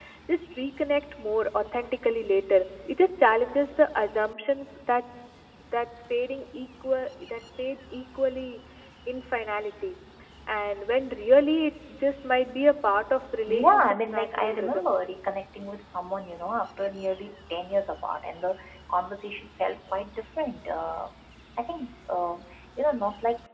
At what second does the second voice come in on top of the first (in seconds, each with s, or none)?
13.5 s